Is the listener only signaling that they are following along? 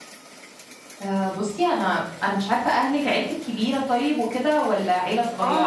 No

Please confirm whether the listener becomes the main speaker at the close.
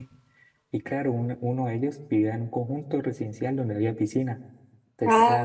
No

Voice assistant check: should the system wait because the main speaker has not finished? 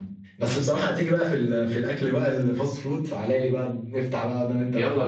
No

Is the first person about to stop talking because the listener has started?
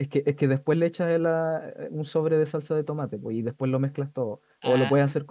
Yes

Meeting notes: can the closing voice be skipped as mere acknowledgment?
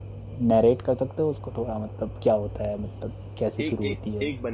No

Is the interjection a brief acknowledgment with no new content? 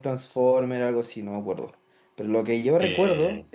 Yes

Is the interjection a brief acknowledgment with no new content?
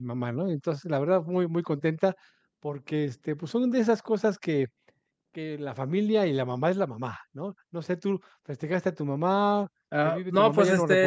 No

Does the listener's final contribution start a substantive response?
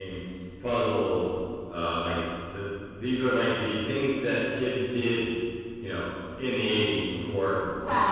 Yes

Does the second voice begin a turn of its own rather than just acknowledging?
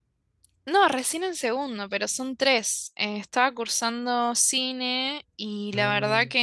No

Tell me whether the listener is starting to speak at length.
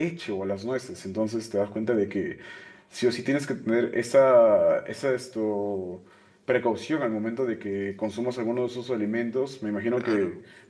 No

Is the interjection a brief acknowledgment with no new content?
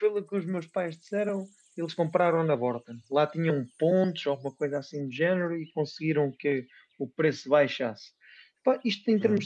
Yes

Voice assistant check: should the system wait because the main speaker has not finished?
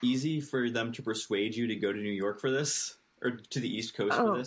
No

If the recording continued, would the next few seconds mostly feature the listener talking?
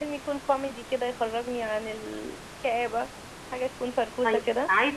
Yes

